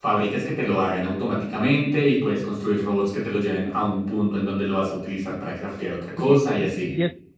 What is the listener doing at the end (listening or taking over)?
taking over